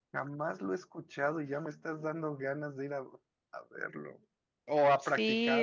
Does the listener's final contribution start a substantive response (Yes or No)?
Yes